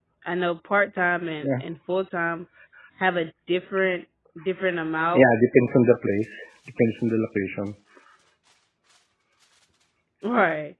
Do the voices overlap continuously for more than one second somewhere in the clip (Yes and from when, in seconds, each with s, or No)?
No